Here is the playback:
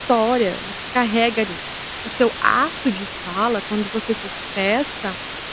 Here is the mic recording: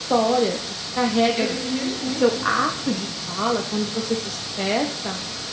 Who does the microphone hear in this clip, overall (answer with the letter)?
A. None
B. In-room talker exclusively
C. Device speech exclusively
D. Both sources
D